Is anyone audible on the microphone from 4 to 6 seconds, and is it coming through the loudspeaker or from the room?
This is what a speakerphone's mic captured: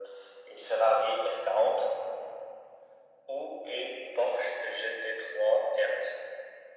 echo only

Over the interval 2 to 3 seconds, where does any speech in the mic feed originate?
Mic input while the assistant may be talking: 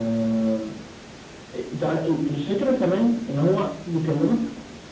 echo only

